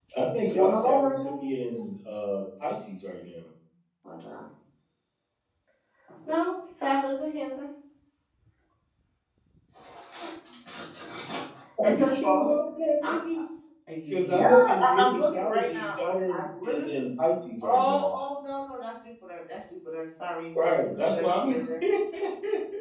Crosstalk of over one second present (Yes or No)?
Yes